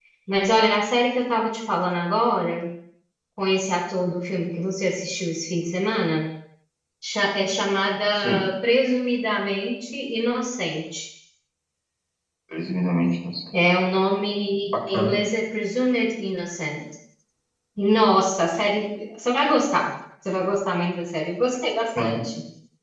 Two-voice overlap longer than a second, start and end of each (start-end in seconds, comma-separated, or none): none